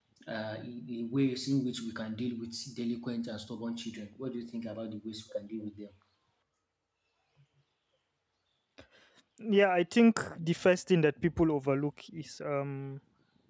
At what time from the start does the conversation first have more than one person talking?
none

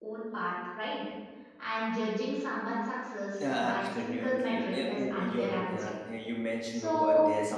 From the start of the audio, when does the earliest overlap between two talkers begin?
3.5 s

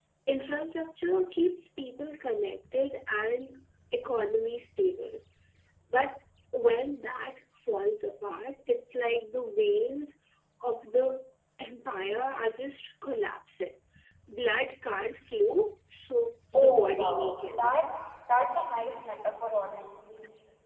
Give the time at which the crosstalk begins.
16.5 s

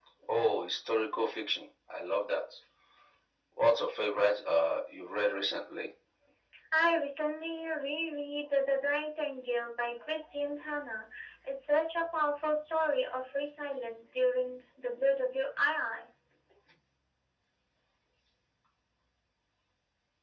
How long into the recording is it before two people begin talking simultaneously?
none

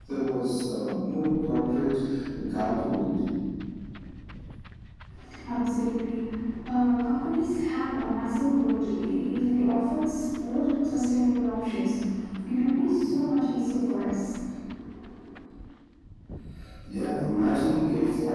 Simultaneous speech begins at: none

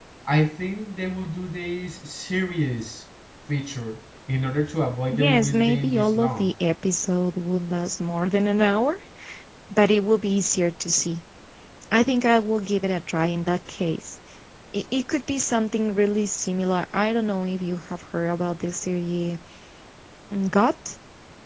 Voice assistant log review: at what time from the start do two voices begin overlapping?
5.1 s

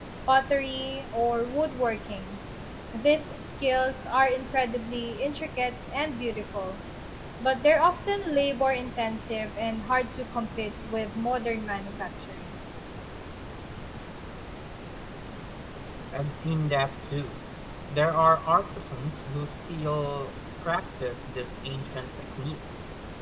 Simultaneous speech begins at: none

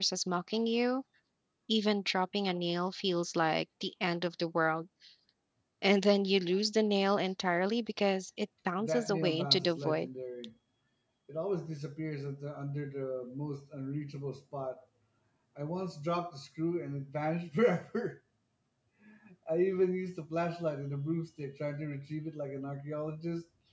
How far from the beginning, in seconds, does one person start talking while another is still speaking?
8.8 s

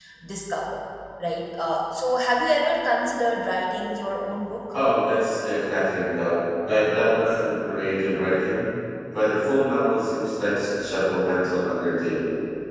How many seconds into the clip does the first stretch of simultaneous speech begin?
none

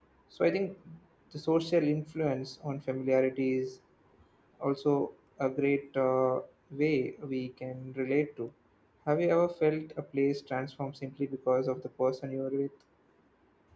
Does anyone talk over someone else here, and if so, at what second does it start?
none

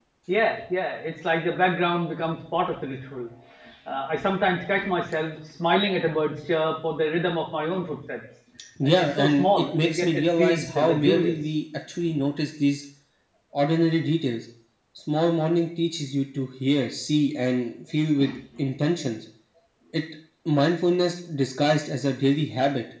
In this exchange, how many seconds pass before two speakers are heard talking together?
8.8 s

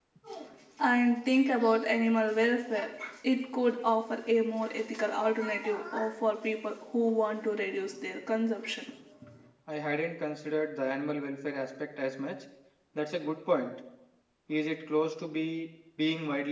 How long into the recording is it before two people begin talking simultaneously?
none

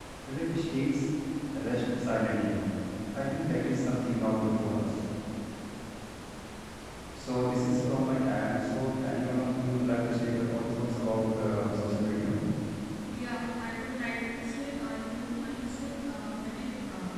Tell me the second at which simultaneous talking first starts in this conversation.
none

